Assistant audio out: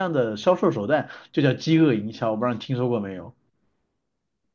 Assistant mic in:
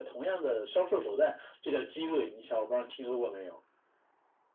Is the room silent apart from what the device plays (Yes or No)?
Yes